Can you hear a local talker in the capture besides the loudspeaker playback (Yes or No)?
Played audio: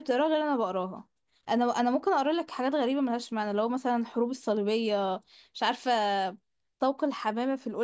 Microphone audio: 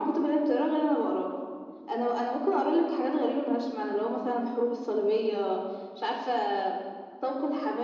Yes